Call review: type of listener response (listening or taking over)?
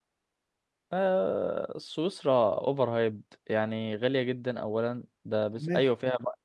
listening